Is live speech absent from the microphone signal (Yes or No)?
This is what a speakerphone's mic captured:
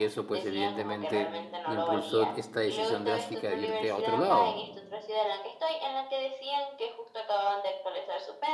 No